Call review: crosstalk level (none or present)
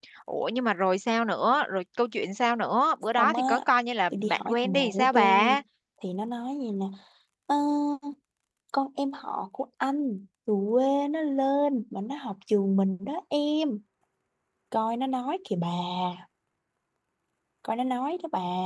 present